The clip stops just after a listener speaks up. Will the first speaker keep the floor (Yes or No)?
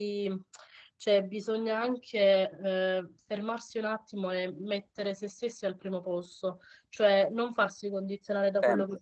Yes